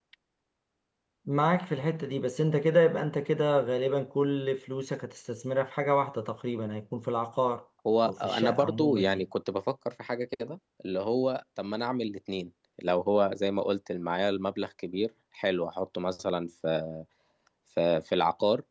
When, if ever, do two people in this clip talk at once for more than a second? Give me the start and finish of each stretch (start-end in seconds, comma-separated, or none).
8.0-9.2